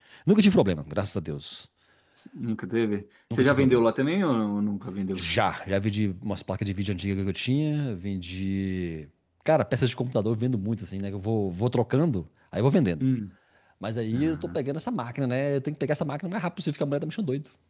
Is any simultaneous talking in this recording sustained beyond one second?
No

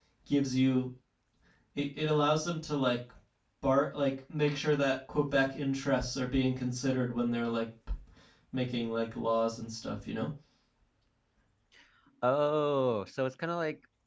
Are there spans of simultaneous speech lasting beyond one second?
No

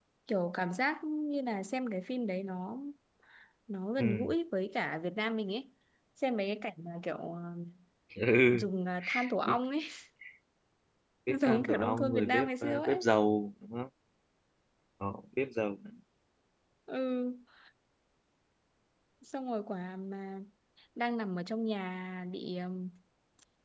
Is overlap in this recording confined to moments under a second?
No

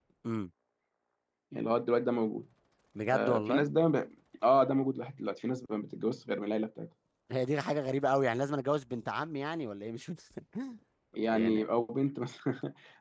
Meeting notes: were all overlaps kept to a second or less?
Yes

